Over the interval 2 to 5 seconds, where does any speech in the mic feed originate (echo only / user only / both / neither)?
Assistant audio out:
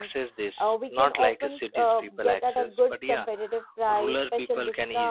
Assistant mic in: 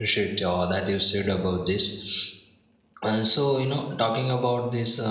user only